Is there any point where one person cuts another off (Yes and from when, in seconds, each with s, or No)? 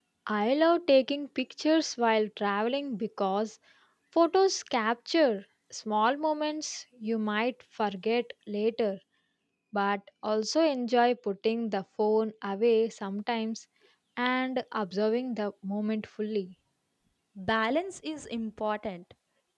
No